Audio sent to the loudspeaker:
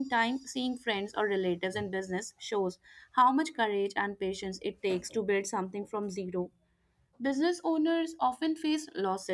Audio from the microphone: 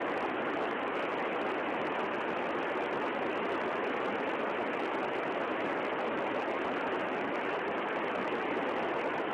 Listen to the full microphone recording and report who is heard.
neither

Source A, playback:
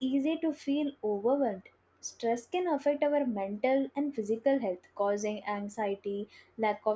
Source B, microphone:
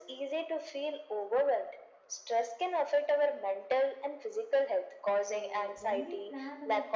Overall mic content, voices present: both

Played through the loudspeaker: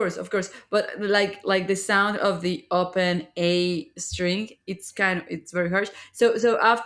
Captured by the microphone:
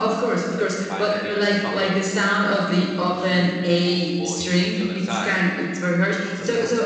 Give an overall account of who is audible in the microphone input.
both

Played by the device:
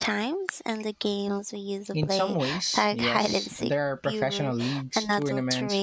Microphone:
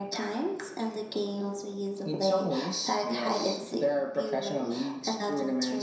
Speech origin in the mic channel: echo only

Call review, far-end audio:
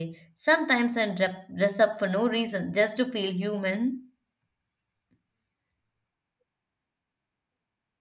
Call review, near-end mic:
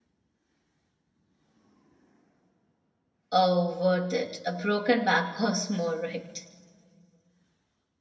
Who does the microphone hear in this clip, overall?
user only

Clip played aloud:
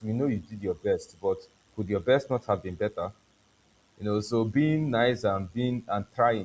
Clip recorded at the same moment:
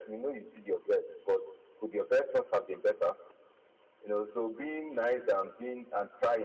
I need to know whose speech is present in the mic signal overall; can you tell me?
echo only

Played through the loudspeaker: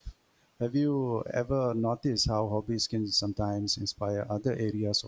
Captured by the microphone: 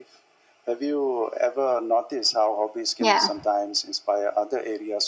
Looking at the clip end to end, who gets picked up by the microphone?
both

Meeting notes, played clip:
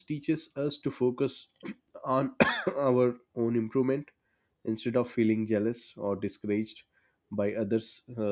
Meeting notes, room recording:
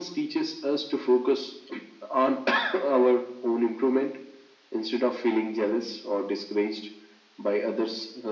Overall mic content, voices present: echo only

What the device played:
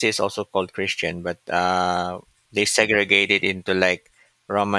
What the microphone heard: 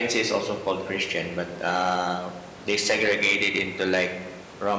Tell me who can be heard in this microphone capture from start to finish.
echo only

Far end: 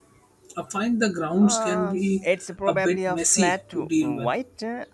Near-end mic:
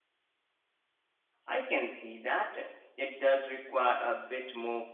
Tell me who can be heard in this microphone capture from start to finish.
user only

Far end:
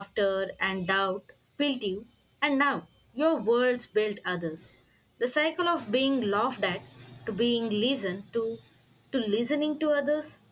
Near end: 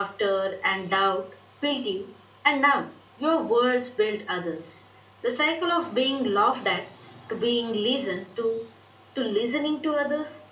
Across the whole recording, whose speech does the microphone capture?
echo only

